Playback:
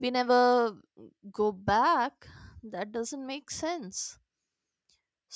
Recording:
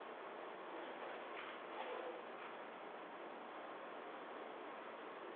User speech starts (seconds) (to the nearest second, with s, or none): none